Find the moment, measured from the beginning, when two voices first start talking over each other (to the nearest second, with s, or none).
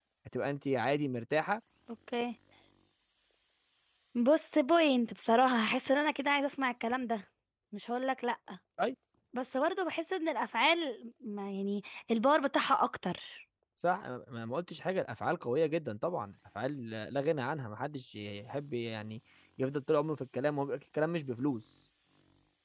none